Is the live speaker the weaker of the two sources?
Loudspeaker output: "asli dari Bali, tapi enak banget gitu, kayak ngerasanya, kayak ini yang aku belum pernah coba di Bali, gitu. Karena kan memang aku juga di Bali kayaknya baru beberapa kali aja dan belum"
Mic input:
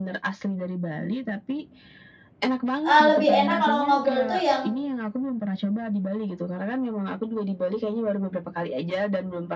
No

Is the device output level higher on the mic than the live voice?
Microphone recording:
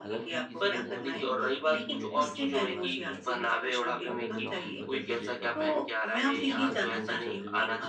Yes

